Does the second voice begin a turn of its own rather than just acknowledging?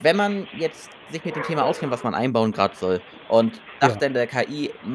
No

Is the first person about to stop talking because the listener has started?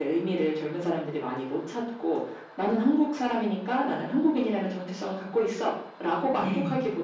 No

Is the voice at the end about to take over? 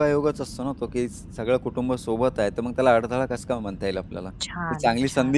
Yes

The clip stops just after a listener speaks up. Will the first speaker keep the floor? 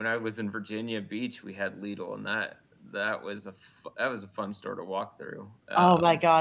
No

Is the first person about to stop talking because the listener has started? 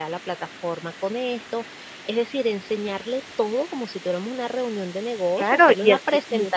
Yes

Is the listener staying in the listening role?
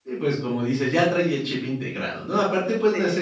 Yes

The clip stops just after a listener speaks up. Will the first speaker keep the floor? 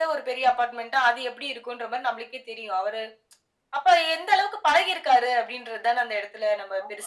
No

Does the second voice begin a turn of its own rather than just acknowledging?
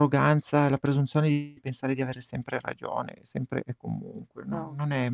No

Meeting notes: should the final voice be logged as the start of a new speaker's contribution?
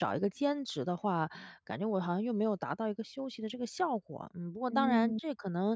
No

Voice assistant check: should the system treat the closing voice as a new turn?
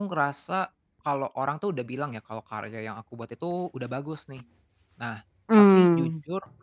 No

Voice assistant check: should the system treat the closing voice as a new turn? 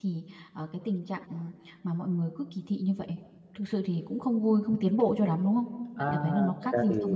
Yes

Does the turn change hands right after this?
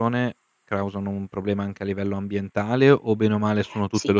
Yes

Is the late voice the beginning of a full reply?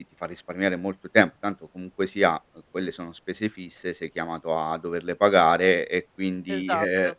No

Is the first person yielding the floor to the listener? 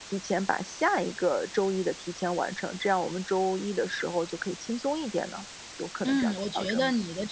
Yes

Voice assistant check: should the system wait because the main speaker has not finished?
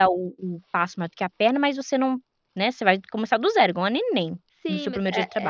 No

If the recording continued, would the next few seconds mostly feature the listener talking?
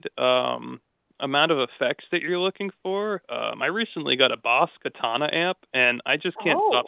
No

